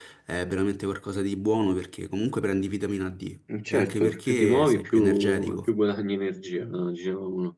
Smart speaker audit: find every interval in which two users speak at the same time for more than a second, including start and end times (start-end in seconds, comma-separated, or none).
3.7-5.7